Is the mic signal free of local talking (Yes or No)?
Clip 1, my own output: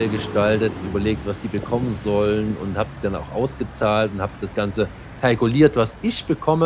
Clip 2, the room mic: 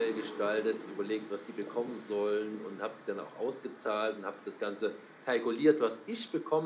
Yes